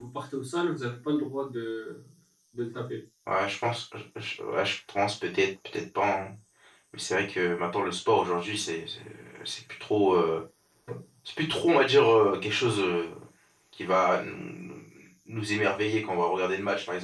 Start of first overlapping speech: none

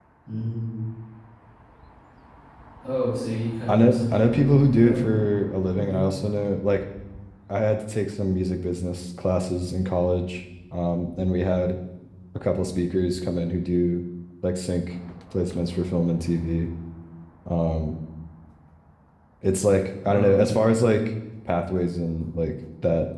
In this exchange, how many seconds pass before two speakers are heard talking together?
3.7 s

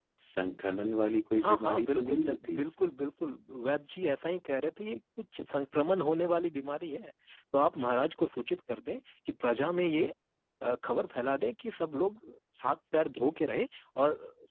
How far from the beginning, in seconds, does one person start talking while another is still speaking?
1.4 s

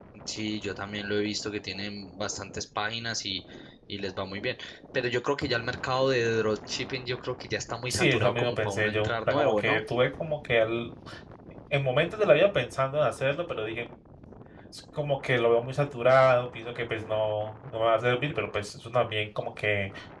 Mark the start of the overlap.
7.9 s

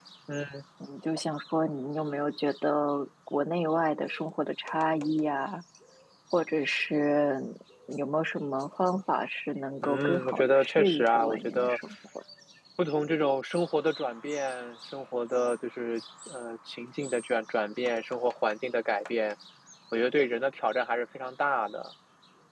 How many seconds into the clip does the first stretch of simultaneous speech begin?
9.8 s

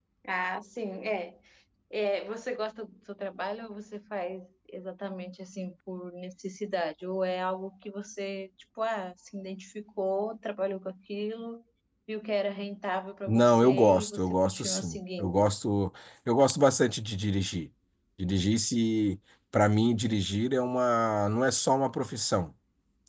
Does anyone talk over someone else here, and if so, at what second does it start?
13.3 s

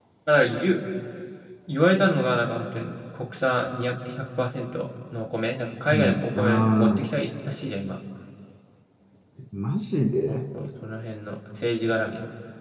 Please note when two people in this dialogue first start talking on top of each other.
5.9 s

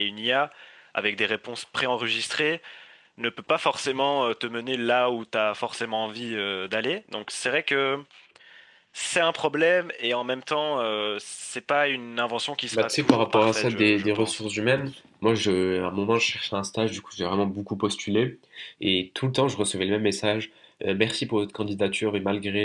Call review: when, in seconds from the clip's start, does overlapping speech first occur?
12.7 s

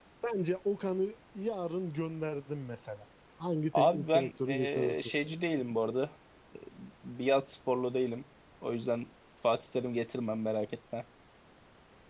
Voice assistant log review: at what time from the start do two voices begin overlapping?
3.7 s

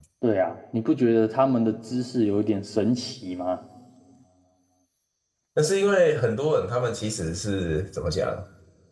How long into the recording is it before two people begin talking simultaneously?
none

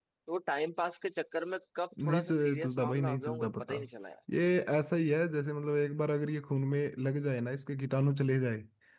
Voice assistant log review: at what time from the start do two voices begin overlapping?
1.9 s

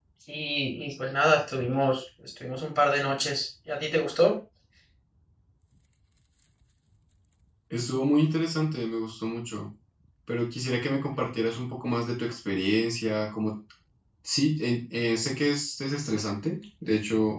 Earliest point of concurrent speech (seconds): none

